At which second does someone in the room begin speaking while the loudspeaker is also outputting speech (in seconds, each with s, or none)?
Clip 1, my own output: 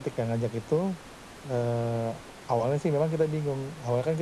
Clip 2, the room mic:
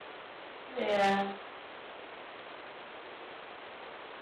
0.7 s